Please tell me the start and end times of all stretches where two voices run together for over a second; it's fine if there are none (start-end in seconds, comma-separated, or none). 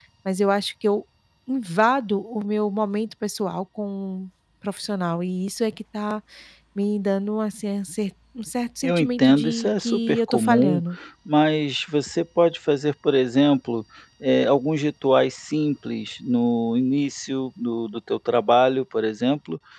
8.8-10.8